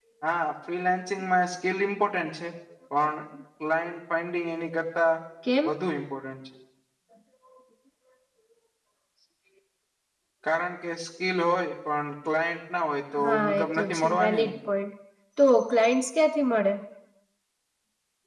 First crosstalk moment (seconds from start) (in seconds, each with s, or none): 13.1 s